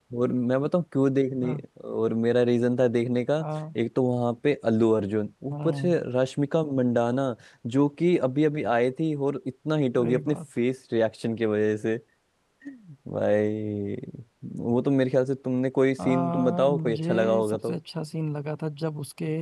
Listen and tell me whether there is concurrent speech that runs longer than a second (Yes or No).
Yes